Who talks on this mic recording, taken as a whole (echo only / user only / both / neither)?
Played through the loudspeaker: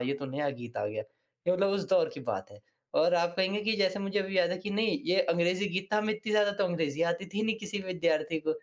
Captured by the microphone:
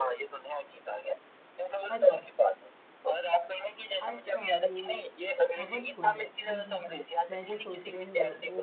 both